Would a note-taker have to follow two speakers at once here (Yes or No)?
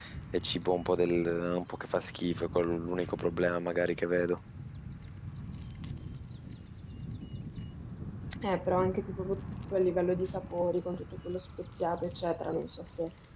No